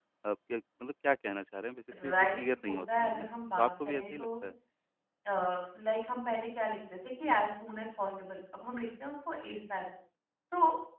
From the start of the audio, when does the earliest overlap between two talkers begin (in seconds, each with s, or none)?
1.9 s